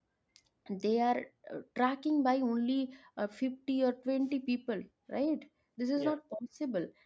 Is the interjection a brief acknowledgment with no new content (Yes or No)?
Yes